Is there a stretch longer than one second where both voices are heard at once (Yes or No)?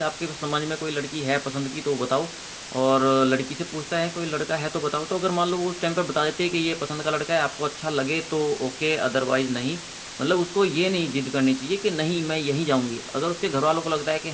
No